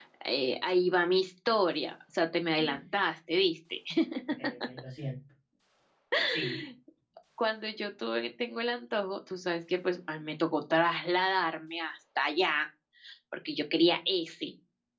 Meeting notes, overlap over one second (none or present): none